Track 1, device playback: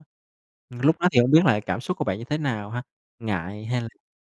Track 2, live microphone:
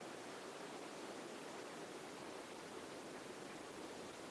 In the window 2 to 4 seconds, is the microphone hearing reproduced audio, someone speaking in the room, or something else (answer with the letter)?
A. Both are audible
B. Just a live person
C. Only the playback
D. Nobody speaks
D